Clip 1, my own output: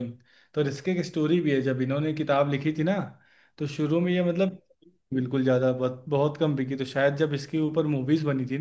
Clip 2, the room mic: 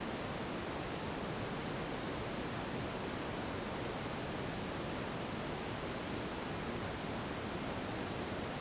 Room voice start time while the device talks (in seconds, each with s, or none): none